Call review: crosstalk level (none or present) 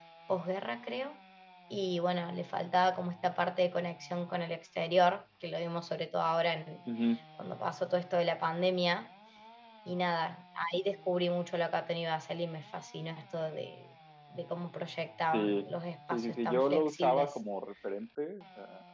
present